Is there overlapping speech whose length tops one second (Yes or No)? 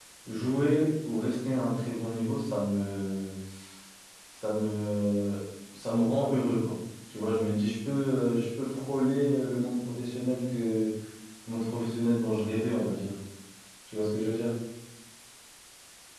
No